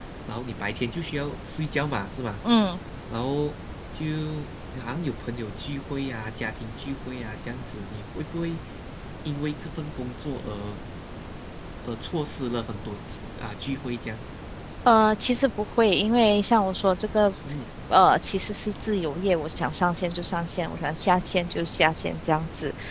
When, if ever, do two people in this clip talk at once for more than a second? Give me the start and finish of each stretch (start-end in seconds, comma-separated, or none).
none